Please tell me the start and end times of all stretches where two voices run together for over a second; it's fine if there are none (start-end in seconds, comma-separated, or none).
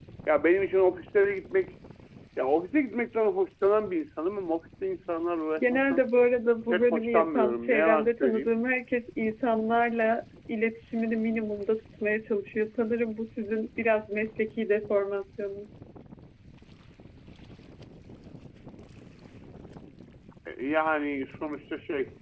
6.7-8.5